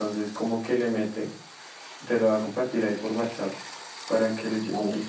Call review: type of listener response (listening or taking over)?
taking over